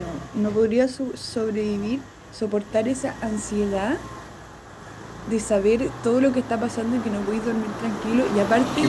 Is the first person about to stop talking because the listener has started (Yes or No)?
No